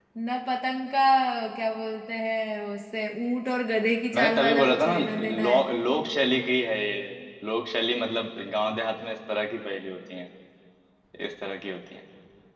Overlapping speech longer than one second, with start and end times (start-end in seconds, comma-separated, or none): 4.2-5.5